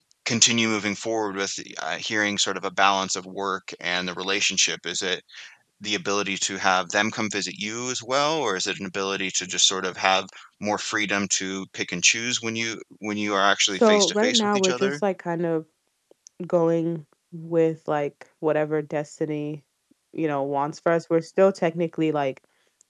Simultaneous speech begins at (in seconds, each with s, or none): 13.7 s